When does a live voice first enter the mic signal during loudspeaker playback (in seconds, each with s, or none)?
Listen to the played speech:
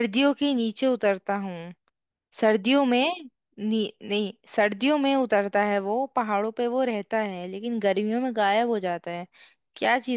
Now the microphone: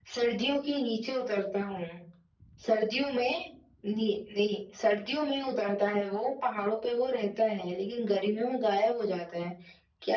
none